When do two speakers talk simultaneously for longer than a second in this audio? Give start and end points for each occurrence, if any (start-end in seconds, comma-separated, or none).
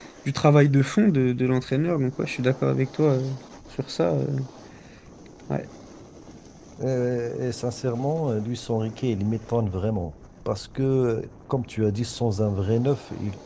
none